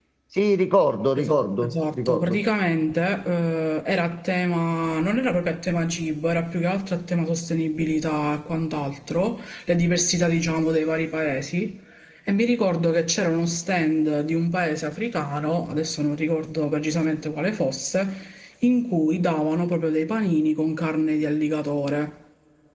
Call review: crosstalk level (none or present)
present